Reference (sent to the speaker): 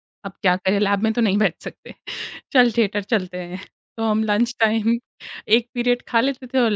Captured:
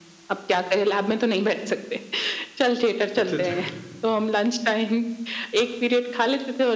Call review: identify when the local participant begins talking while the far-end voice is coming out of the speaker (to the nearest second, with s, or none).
3 s